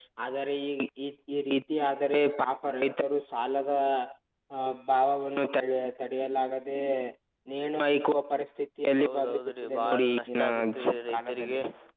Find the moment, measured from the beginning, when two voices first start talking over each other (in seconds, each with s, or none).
9.0 s